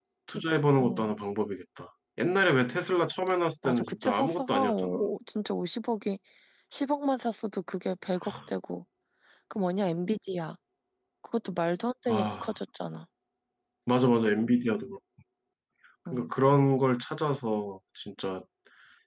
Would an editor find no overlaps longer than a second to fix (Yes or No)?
No